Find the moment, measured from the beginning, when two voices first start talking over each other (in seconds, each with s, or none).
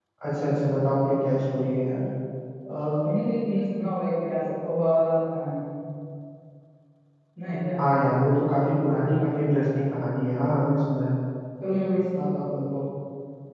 none